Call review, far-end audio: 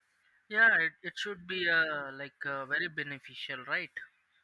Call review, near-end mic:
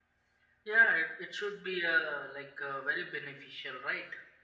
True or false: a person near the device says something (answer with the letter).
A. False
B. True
A